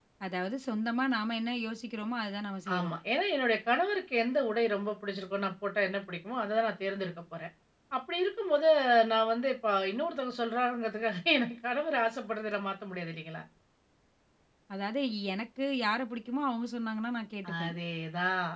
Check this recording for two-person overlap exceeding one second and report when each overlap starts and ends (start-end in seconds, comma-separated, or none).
none